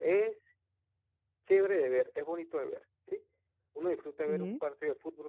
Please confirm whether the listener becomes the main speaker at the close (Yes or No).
No